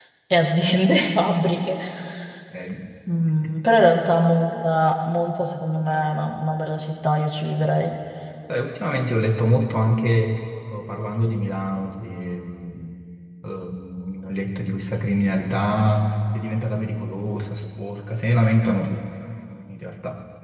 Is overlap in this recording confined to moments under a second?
Yes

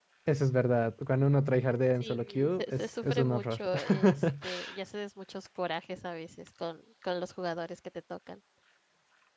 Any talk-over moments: Yes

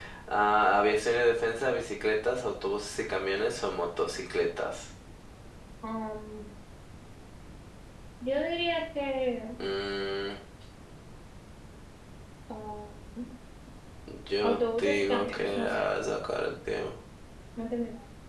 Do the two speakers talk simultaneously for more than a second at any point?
Yes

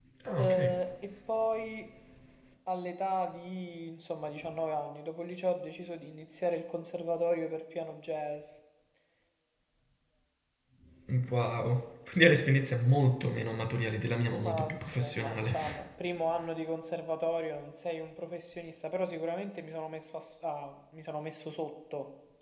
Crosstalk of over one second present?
Yes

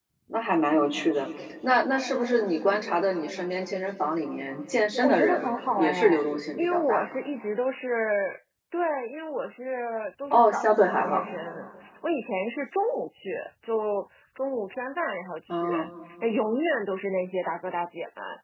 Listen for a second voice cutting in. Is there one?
Yes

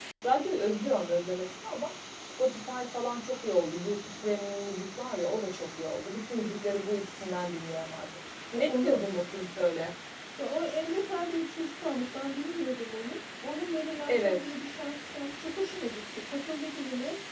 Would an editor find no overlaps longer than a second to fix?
Yes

